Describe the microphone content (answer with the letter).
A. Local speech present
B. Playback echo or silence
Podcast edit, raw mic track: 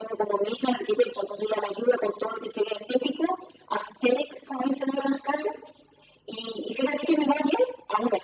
B